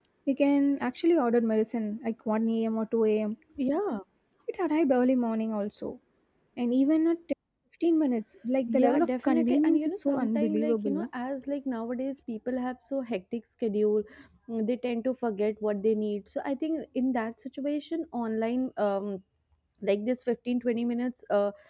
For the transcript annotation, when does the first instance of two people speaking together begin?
8.7 s

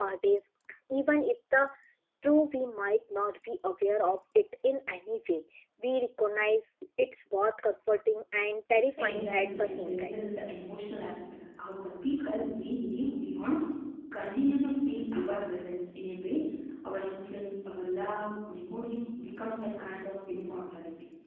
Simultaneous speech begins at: 9.0 s

